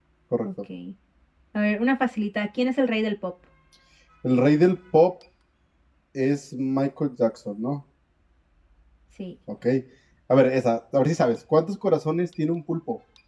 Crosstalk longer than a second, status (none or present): none